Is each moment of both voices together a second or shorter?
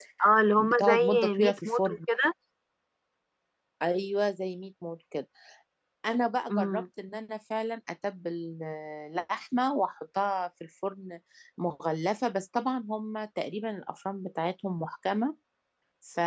No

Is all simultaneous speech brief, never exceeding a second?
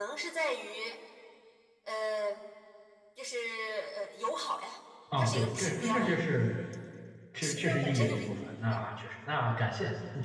No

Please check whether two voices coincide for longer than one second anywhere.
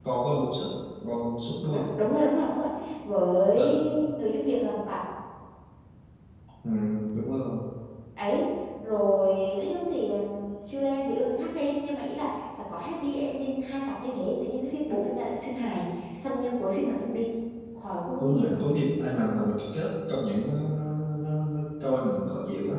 No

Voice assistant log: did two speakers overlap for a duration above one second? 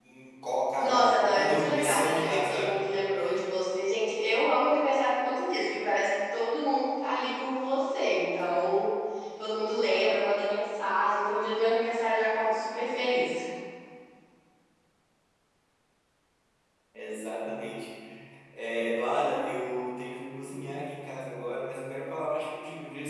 Yes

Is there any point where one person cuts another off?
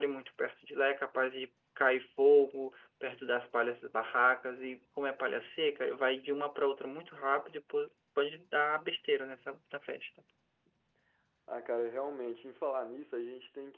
No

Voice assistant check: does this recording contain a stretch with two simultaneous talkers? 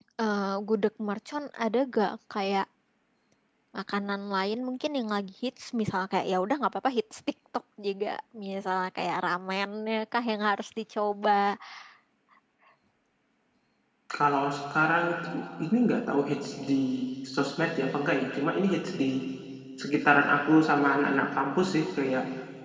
No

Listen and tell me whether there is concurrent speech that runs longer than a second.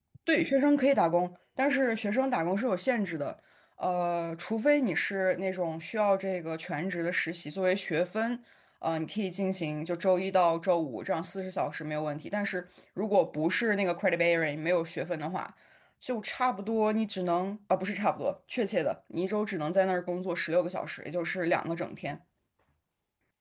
No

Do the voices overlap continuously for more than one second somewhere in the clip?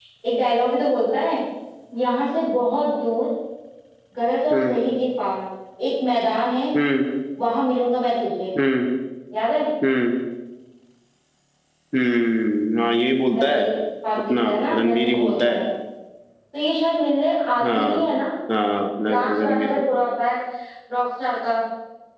Yes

